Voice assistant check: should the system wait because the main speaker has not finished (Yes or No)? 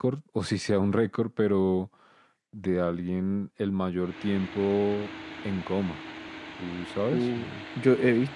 No